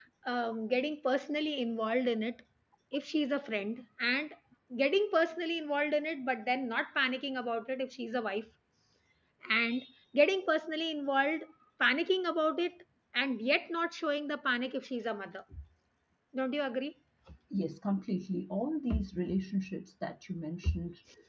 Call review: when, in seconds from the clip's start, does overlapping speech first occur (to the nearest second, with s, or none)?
none